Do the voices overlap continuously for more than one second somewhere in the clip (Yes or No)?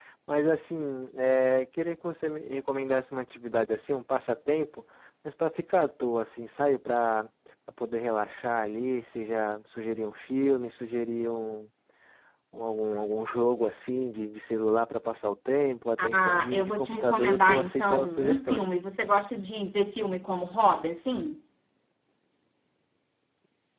Yes